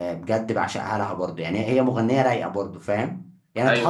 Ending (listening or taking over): listening